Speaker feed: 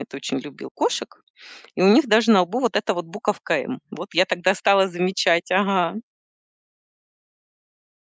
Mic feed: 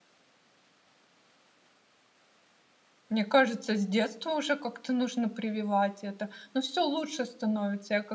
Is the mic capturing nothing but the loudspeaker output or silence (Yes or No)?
No